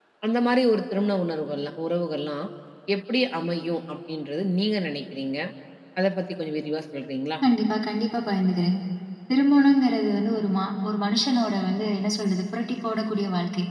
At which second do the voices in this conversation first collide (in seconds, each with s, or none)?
none